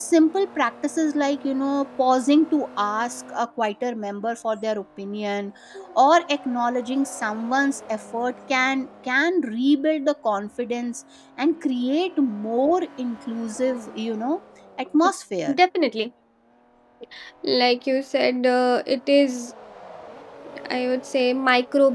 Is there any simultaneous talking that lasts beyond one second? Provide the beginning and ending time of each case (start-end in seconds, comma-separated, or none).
none